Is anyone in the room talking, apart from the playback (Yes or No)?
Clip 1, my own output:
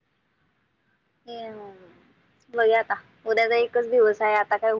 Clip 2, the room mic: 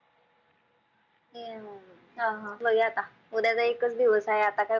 Yes